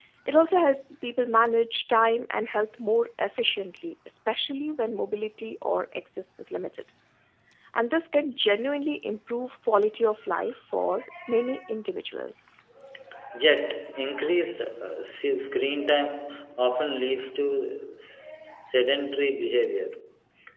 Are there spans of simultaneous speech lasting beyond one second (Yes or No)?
No